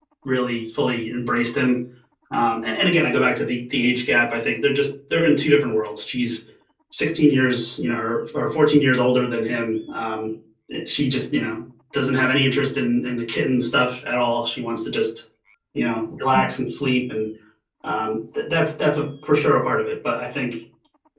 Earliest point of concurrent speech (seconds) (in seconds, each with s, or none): none